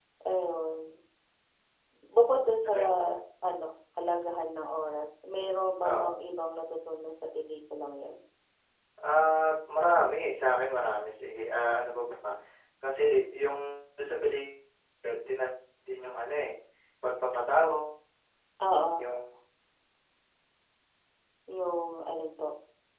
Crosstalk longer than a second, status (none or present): none